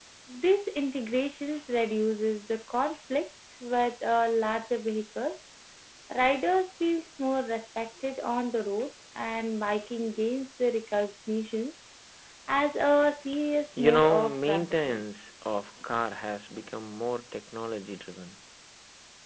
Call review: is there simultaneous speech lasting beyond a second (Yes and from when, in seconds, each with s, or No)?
Yes, from 13.8 s